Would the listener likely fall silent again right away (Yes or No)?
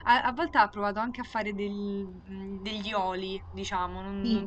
Yes